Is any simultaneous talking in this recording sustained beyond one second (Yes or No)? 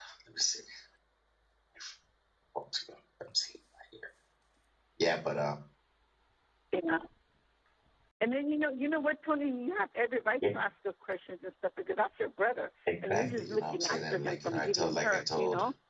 Yes